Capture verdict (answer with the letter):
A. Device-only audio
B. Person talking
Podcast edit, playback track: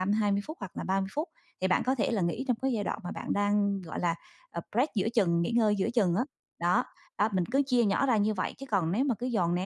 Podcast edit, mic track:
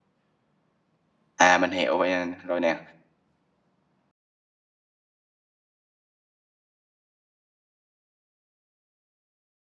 B